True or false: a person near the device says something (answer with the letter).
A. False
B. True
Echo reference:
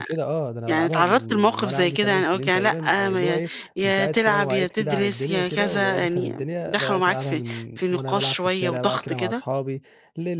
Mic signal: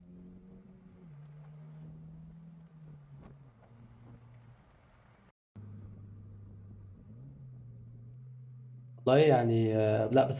B